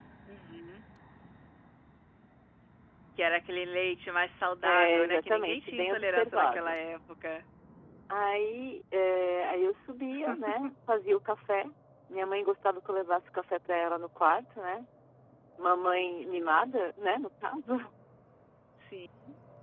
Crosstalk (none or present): present